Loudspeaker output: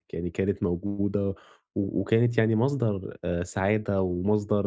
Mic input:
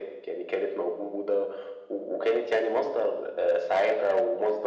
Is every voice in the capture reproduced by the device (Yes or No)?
Yes